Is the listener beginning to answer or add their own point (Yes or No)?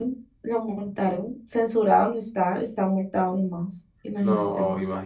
Yes